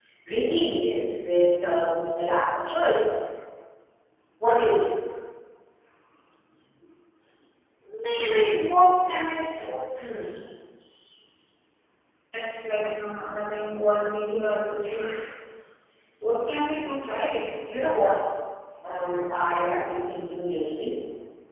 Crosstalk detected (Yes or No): No